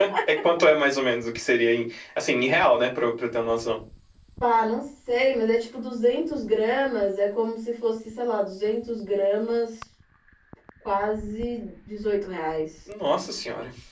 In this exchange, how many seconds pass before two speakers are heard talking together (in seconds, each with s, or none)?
none